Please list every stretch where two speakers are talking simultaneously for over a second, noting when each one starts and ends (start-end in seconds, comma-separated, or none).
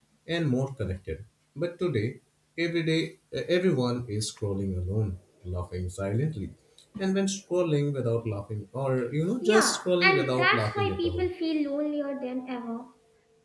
9.4-11.2